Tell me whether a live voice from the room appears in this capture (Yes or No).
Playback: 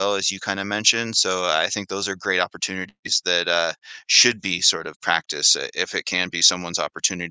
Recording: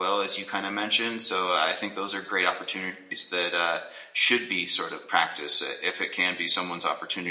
No